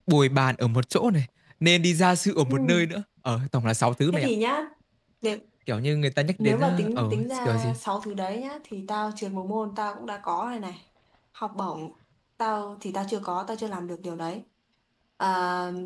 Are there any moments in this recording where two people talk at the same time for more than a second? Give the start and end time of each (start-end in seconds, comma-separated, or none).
6.4-7.8